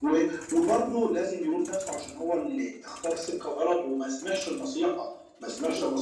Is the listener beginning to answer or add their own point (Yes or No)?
No